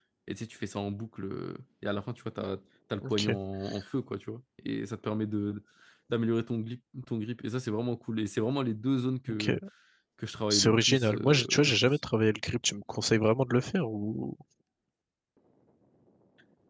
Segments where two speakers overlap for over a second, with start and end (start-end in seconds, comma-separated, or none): 10.5-12.0